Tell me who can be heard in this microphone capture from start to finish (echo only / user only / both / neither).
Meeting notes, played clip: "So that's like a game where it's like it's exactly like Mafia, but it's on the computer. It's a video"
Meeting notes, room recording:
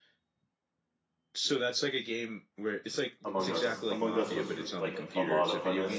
both